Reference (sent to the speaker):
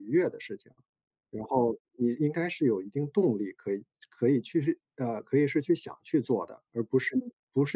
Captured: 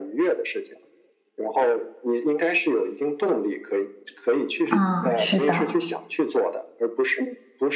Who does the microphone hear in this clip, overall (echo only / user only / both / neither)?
both